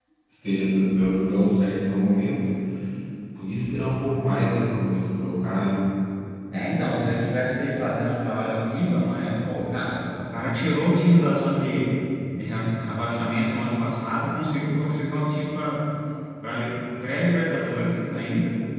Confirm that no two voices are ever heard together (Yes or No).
Yes